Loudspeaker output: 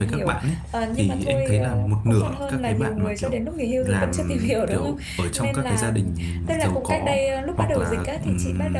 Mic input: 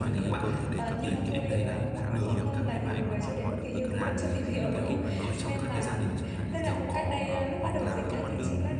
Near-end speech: present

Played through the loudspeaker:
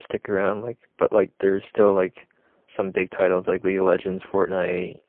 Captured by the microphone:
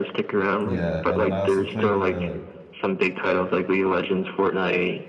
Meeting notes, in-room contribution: present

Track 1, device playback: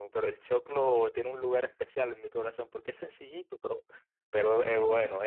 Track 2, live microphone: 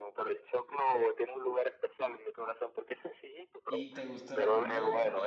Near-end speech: present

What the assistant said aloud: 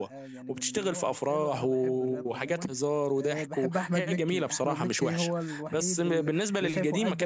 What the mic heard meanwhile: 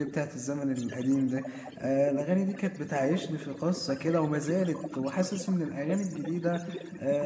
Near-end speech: present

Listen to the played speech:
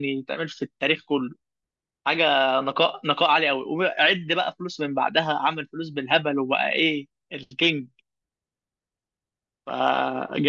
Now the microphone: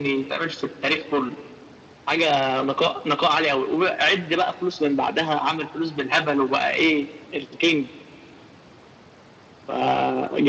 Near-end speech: none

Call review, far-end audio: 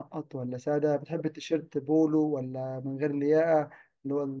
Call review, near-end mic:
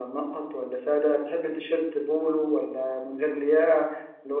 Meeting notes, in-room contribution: none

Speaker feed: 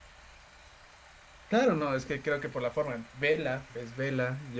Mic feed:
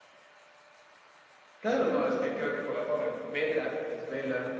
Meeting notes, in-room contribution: none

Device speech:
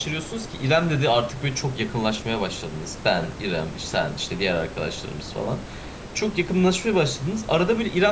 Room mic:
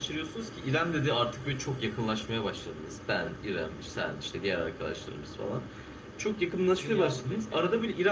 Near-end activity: present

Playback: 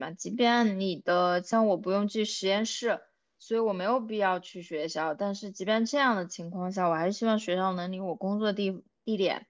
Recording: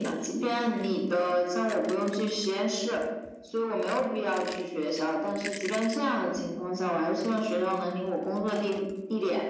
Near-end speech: none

